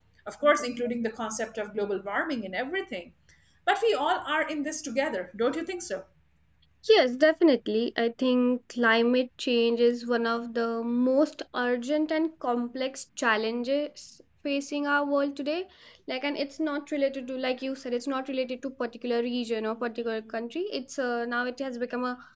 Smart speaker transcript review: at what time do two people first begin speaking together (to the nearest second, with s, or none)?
none